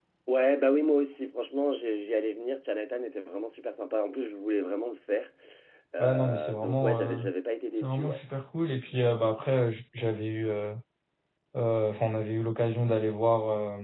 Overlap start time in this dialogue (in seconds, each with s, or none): 6.0 s